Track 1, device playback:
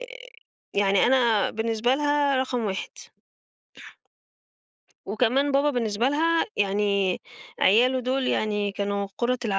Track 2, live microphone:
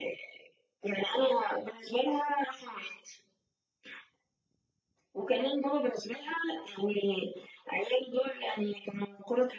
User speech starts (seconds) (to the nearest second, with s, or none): none